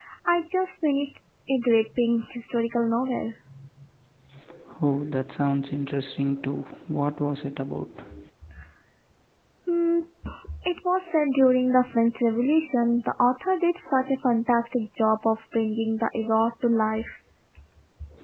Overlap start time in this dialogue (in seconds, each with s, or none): none